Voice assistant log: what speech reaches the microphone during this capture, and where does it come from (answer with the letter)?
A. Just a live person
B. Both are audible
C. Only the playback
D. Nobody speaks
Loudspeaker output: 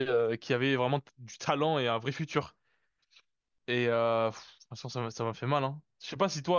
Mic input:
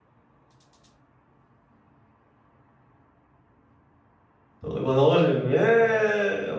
A